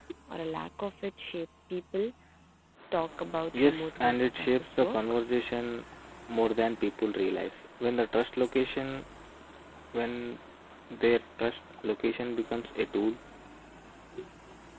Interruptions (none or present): present